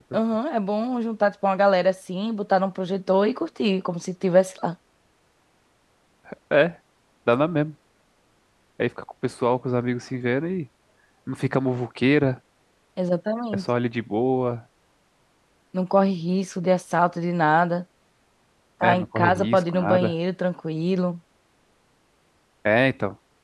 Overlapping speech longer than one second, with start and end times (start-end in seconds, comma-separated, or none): 18.8-20.1